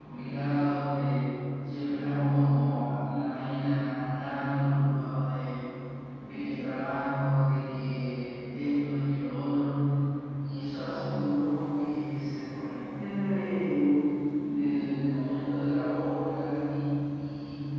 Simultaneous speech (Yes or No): No